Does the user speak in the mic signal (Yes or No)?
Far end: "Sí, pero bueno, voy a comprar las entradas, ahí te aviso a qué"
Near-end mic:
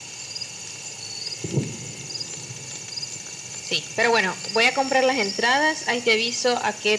No